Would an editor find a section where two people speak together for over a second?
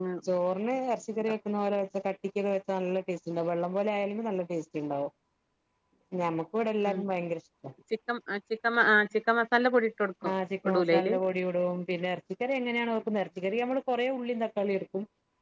No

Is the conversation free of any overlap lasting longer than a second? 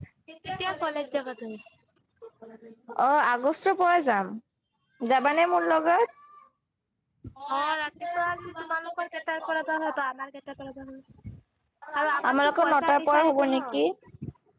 No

